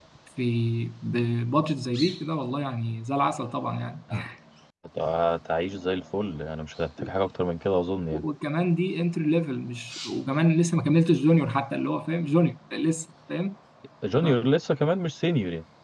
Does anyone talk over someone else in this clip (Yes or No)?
No